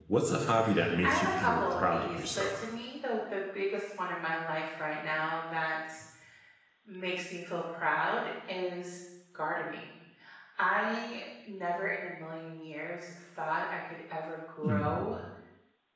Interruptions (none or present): present